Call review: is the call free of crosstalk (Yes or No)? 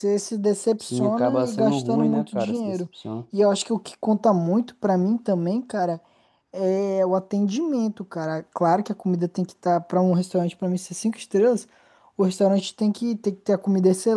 No